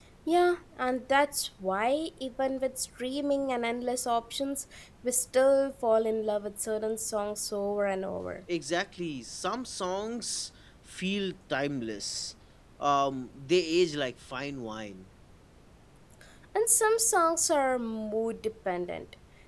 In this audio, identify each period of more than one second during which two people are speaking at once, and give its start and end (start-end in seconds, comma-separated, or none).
none